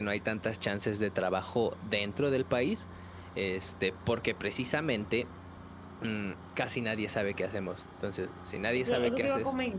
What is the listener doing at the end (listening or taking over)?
taking over